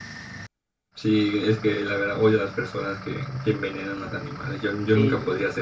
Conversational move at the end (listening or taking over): taking over